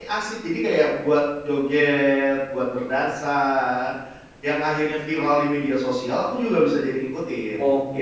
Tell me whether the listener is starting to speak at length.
Yes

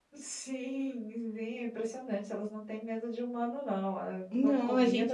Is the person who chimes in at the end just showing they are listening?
No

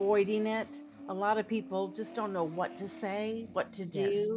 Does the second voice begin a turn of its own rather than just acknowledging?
No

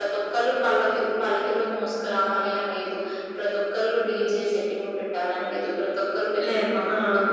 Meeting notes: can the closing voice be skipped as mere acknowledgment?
Yes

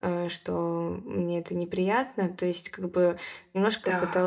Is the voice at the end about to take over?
No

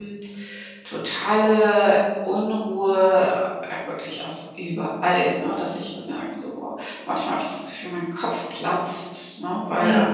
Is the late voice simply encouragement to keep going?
Yes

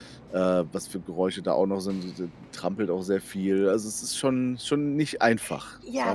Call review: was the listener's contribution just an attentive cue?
No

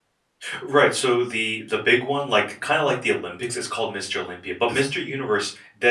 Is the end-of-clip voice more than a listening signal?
No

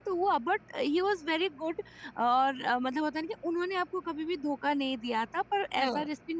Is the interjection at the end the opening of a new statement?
No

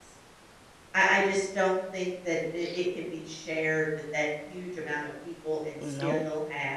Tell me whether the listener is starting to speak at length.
No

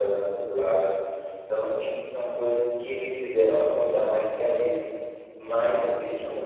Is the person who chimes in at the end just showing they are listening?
Yes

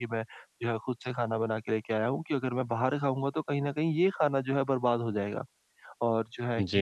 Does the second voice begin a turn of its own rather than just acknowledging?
No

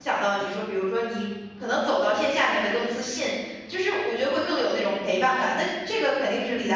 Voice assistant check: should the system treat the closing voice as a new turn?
Yes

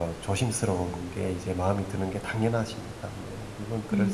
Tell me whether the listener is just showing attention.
No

